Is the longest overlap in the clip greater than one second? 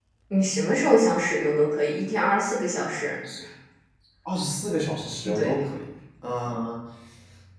No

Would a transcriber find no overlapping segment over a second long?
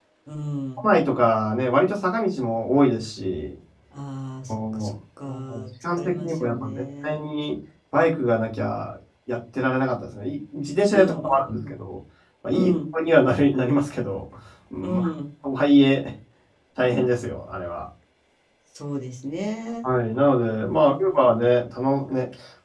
No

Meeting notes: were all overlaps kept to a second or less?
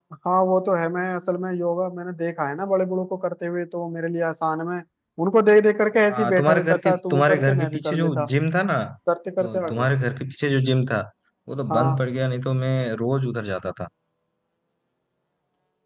No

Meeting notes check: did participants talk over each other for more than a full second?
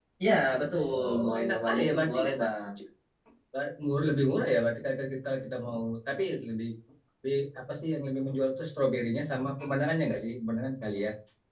Yes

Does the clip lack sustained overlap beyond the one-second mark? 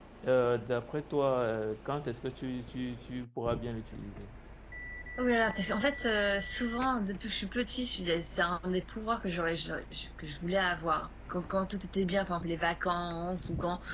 Yes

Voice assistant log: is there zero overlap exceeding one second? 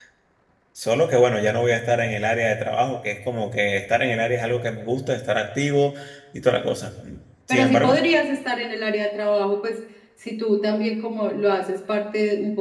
Yes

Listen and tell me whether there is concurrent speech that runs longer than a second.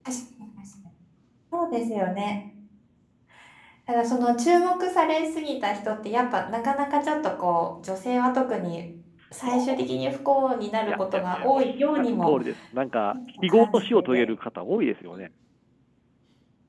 Yes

